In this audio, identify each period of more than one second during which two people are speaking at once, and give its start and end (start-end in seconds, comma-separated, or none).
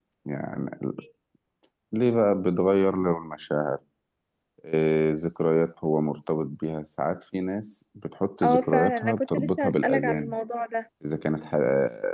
8.4-10.4